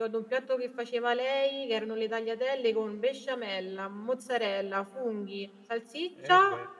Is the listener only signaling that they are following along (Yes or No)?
Yes